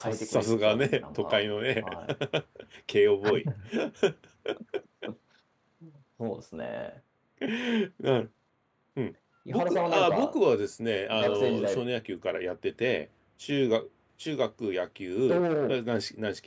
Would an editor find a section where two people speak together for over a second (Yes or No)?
Yes